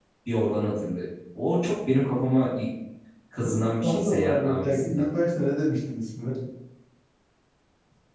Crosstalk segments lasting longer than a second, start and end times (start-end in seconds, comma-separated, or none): 3.8-5.1